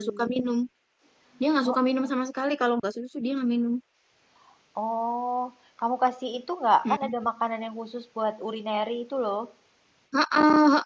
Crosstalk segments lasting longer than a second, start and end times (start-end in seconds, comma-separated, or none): none